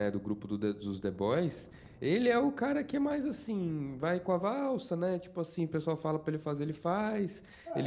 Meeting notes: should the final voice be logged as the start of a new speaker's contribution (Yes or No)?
Yes